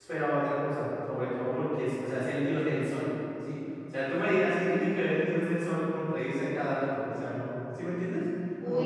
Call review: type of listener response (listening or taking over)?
taking over